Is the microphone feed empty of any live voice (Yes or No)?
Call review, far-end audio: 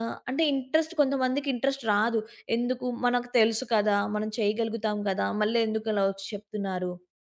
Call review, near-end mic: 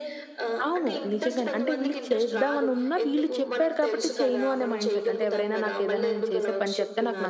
No